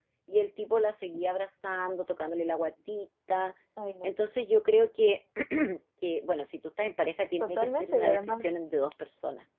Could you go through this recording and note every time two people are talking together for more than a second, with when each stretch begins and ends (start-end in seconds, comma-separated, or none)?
7.4-8.8